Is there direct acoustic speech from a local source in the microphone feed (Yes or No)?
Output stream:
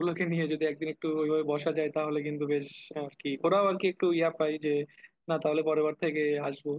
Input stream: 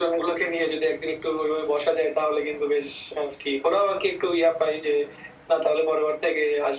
No